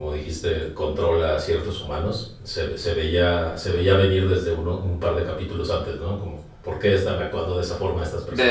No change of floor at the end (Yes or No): No